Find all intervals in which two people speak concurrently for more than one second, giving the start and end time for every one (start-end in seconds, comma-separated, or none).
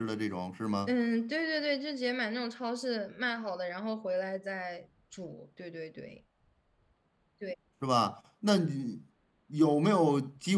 none